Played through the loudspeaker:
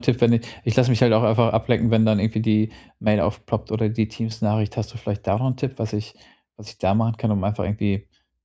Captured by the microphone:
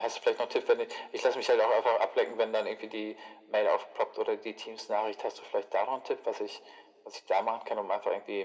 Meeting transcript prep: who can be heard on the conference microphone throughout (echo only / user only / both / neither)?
echo only